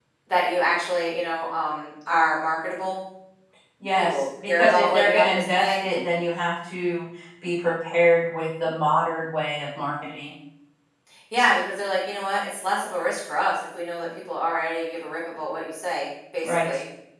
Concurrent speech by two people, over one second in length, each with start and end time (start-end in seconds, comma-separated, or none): 3.9-5.8